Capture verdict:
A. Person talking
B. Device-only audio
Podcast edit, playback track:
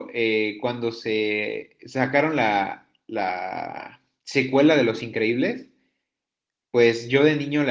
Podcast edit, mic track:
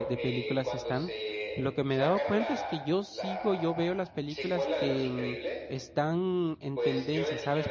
A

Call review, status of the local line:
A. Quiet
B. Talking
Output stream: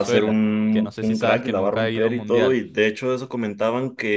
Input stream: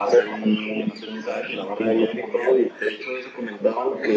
A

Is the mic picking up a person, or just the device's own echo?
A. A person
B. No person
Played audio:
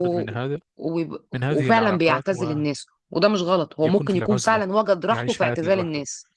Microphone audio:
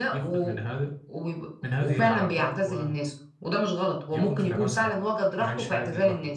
B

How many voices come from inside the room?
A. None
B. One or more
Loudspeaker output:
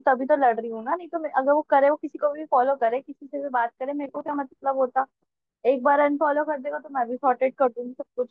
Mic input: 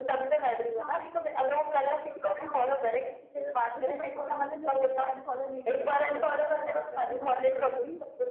B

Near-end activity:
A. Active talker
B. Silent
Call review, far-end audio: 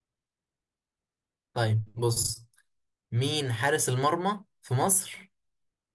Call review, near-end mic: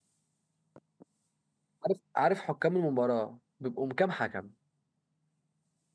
A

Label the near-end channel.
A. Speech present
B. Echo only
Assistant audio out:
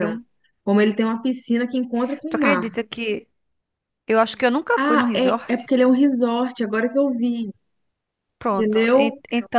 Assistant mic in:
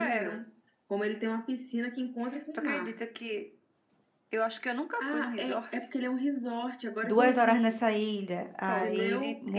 A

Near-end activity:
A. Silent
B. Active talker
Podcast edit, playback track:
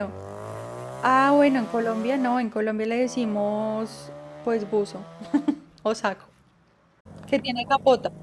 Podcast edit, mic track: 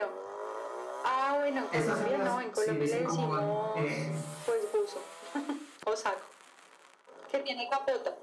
B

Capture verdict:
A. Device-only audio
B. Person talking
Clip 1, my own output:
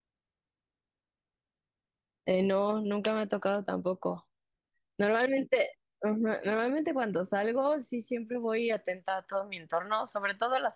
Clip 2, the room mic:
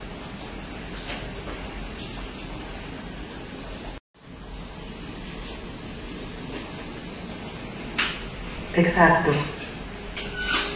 B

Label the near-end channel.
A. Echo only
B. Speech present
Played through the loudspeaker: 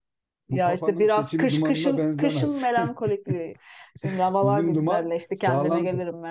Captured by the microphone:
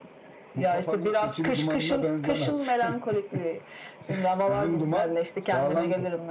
A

